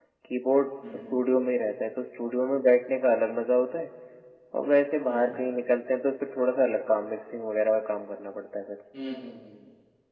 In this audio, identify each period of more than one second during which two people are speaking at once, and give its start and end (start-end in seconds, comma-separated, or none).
none